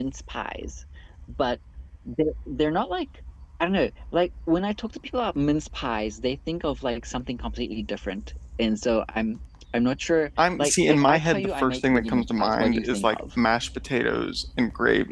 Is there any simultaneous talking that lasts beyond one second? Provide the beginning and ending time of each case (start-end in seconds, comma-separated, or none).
10.4-13.2